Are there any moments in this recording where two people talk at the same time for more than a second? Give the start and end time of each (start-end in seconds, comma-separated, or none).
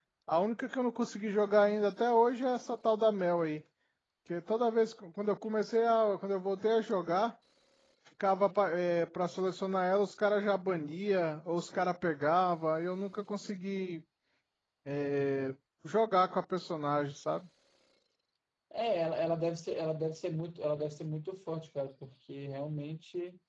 none